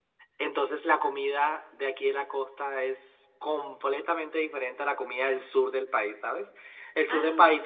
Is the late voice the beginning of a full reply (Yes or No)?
No